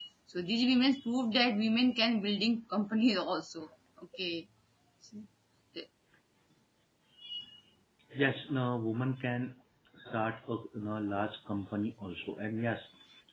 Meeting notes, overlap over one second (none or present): none